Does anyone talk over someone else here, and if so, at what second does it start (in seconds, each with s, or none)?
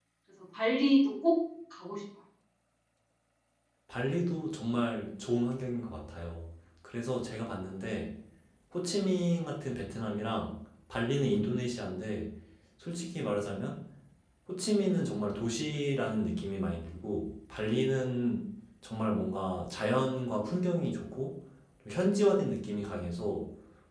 none